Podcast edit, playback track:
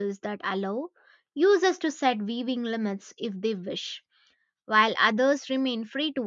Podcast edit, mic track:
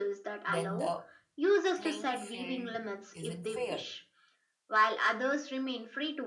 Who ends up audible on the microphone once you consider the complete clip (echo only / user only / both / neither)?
both